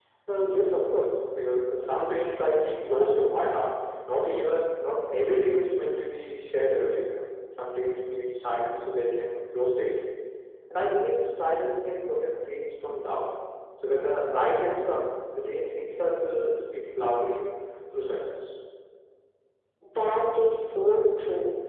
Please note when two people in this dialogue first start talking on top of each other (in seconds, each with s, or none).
none